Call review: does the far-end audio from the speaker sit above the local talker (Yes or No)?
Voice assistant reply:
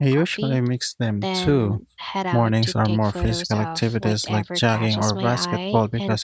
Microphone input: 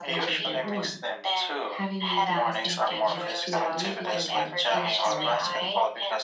Yes